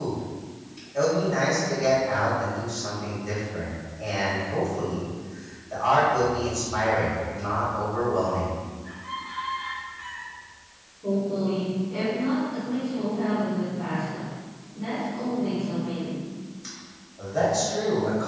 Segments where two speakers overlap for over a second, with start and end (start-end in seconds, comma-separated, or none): none